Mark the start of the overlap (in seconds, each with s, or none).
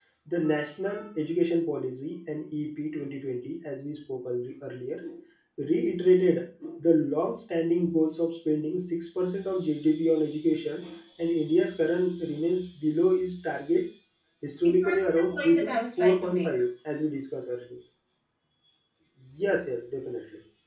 14.6 s